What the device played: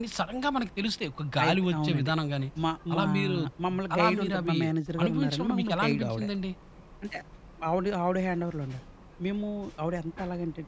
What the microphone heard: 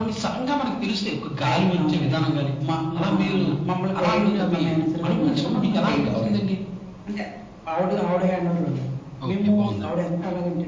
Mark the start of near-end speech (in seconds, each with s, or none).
9.3 s